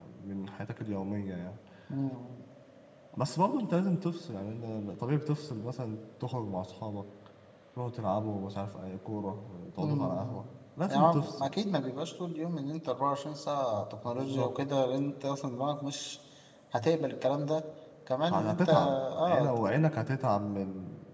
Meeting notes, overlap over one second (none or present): present